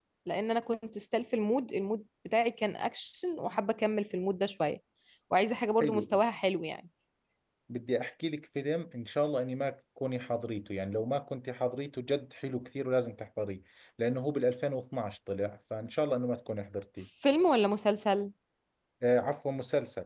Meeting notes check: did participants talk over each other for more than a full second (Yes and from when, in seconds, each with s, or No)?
No